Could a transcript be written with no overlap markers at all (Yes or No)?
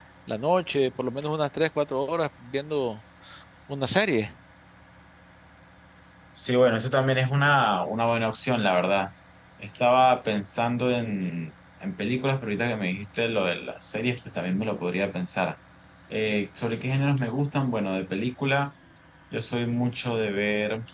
Yes